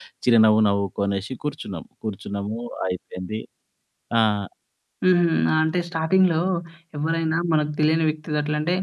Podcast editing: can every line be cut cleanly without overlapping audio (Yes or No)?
Yes